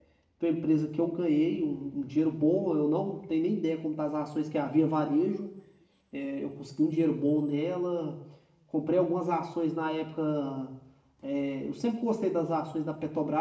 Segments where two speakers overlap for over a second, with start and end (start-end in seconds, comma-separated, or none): none